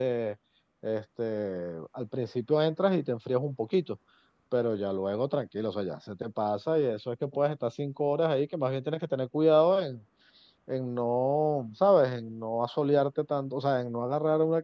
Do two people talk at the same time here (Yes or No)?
No